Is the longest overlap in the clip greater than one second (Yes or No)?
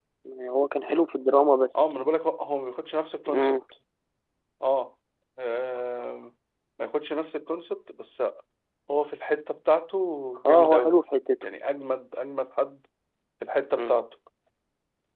No